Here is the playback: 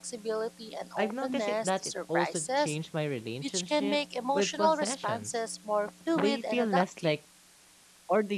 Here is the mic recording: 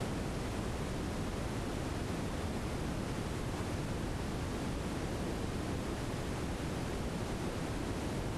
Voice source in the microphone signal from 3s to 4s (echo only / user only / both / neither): neither